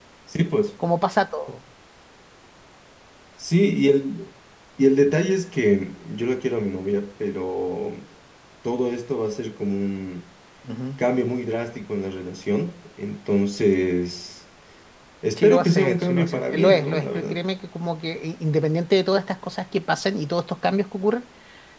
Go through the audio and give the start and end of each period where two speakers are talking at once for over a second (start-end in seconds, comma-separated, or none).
15.4-17.4